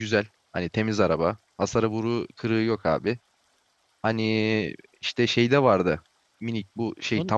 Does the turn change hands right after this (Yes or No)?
No